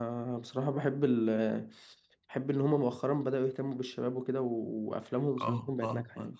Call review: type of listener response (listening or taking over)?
taking over